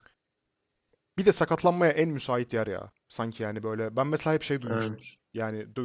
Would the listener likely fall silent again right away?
Yes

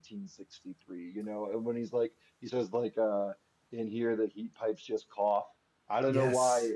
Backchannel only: Yes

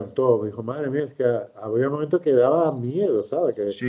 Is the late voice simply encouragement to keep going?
No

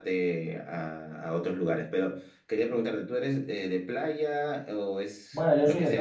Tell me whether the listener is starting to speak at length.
Yes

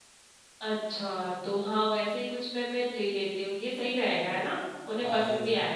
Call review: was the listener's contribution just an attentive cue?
No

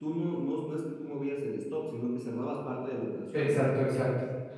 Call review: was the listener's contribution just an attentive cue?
No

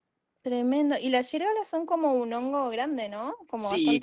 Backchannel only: No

